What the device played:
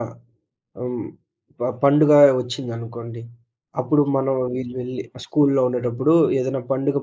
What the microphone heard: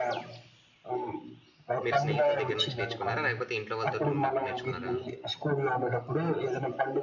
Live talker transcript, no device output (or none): మీరు స్నేహితుల దెగ్గర నుంచి నేర్చుకున్నారా? లేకపోతే ఇంట్లో వాళ్ళతోటి ఉన్నప్పుడు నేర్చుకున్నారా?